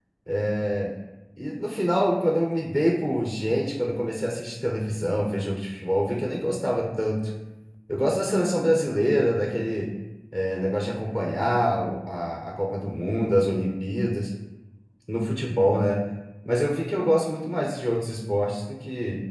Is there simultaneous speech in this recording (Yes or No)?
No